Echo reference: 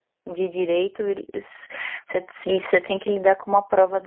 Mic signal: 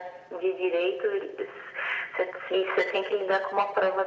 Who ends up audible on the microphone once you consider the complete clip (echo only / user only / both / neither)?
echo only